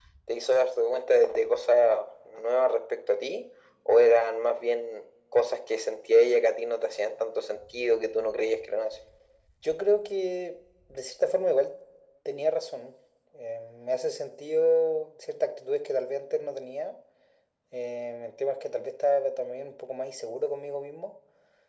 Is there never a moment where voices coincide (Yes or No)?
Yes